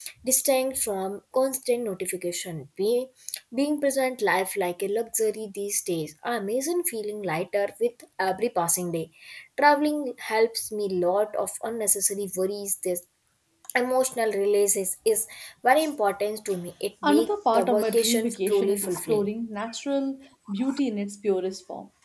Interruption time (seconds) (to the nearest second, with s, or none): 17 s